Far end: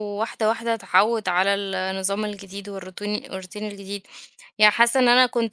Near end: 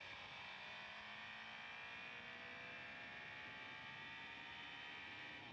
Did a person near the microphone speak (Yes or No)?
No